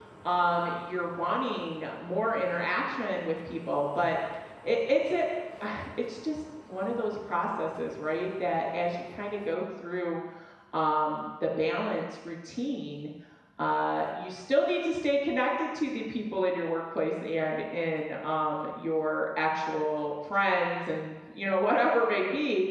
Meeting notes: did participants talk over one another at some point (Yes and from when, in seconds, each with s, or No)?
No